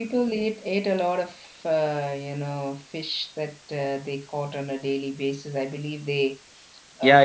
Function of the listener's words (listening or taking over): taking over